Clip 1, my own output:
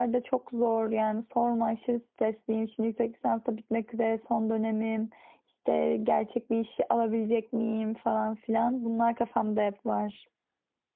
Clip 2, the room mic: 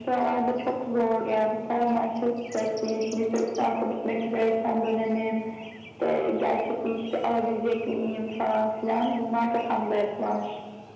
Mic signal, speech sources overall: echo only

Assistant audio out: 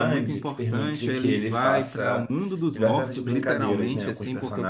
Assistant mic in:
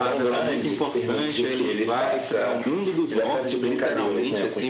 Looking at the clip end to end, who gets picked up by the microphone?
echo only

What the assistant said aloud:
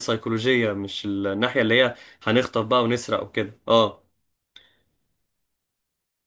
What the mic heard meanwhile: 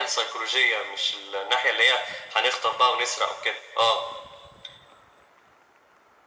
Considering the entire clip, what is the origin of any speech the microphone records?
echo only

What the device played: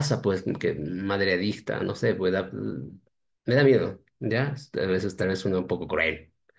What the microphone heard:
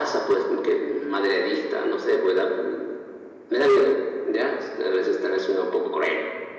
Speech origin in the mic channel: echo only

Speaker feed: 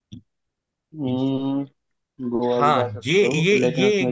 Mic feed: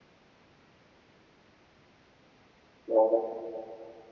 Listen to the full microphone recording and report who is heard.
user only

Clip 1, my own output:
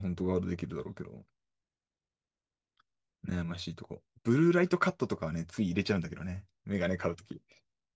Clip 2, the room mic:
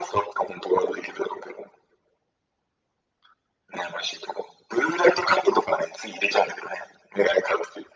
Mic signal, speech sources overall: echo only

